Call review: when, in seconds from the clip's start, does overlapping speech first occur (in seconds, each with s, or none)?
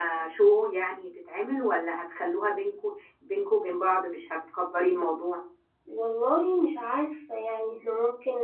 none